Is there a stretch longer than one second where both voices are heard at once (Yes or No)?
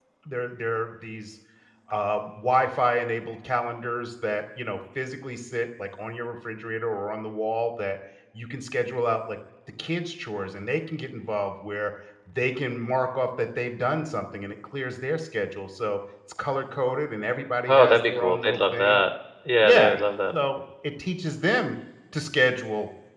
Yes